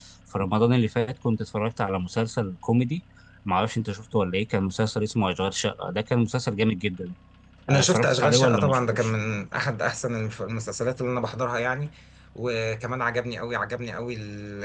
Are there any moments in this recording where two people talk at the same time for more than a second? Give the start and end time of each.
7.7-9.1

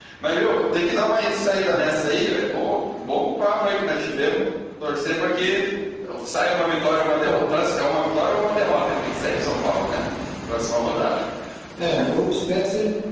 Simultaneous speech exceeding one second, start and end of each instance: none

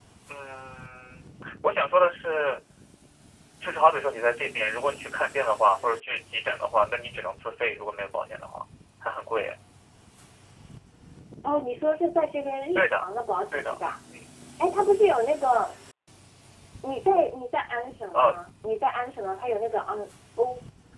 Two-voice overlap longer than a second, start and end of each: none

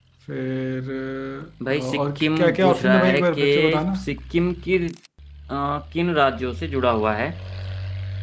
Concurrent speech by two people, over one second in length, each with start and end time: 1.7-4.0

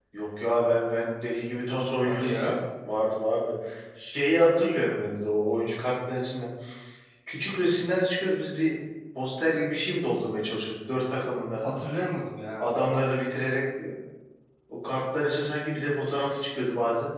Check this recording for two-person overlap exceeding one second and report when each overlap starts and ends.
none

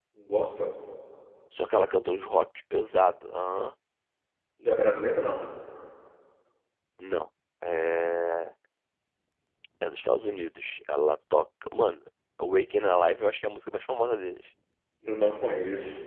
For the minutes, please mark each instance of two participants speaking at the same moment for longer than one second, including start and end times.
none

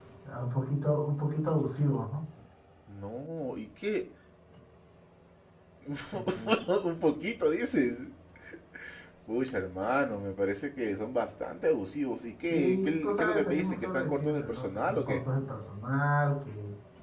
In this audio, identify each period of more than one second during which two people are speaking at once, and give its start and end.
12.5-15.2

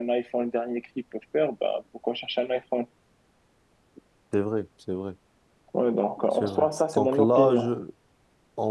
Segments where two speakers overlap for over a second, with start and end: 6.3-7.7

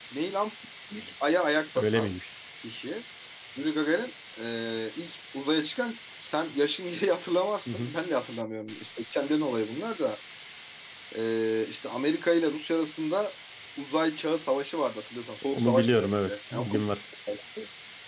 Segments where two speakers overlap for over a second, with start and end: 15.5-16.8

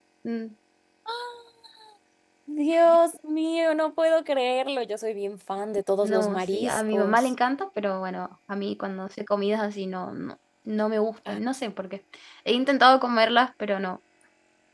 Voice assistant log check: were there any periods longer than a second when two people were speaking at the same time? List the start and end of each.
6.0-7.3

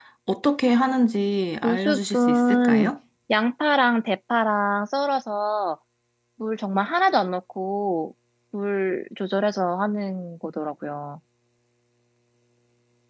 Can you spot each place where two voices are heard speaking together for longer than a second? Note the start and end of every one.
1.6-2.9

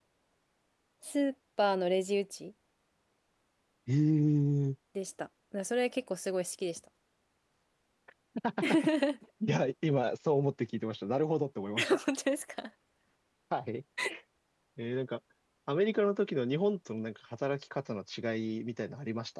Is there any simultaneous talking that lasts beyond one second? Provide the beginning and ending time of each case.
none

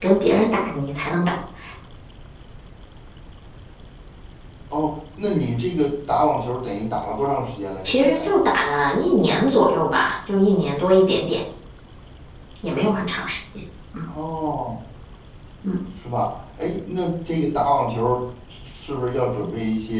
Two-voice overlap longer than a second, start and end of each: none

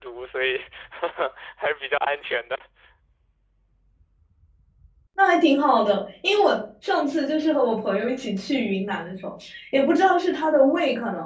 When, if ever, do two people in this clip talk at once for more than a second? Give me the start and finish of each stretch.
none

